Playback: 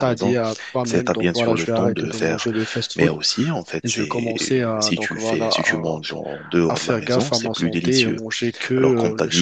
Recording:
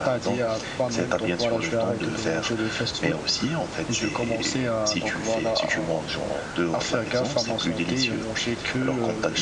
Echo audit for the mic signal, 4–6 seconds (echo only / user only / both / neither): echo only